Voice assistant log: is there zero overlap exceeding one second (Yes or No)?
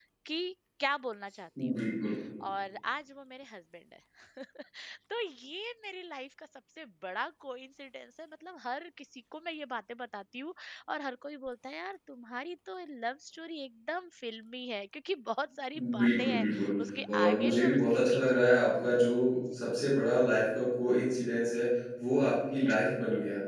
No